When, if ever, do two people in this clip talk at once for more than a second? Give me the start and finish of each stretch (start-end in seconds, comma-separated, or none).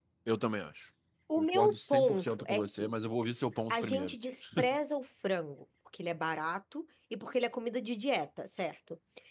1.4-2.9